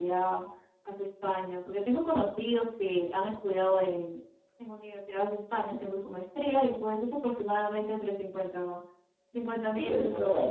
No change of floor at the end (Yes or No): No